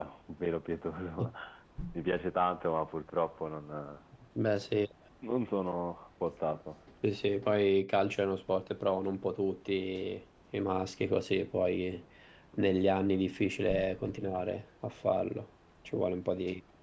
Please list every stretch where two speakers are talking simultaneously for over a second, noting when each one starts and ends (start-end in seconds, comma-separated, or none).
none